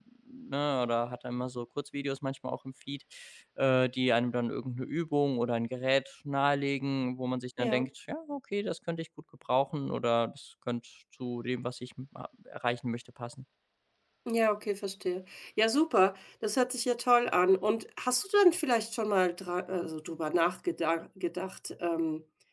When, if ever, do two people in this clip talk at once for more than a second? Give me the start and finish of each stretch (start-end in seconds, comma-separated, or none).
none